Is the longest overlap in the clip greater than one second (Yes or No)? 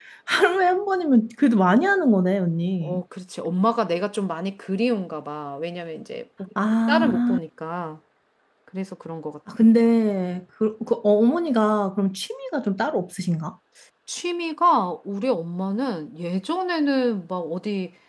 No